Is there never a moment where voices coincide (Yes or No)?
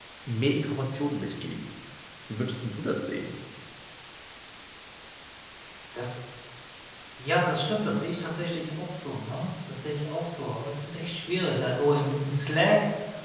Yes